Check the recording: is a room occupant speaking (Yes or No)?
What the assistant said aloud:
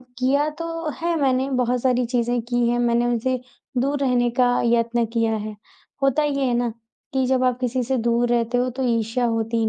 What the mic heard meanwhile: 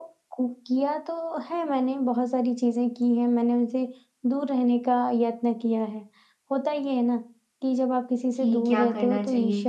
Yes